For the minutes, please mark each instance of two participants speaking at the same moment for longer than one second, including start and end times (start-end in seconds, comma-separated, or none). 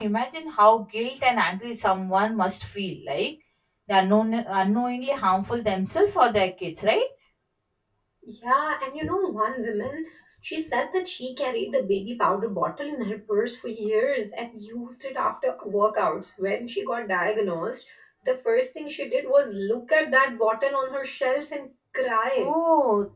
none